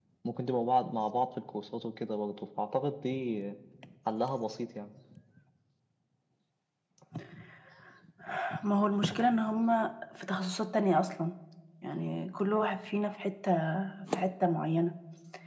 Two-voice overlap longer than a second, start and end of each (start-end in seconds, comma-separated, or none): none